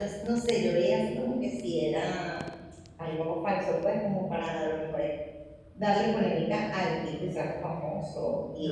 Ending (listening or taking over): listening